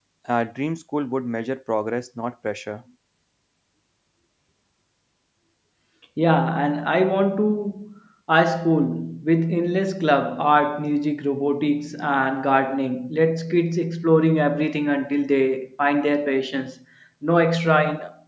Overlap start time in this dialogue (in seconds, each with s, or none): none